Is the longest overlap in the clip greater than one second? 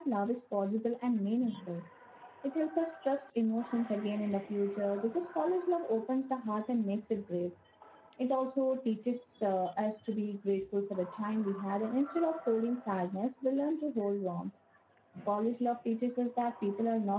No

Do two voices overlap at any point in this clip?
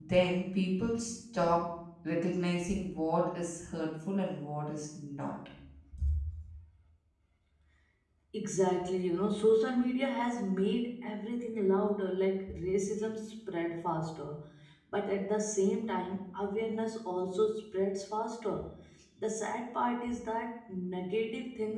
No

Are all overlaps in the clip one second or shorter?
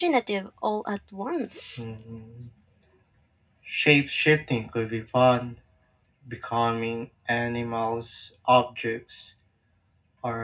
Yes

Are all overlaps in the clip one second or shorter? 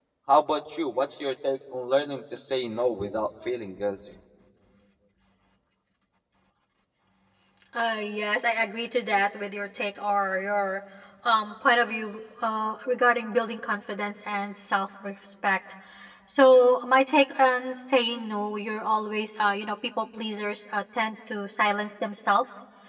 Yes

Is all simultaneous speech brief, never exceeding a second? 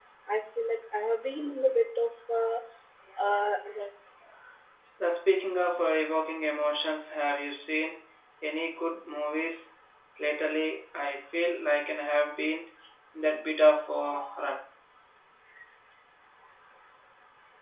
Yes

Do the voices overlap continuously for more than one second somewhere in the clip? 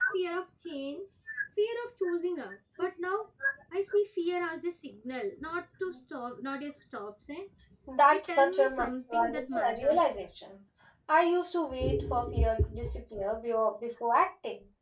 Yes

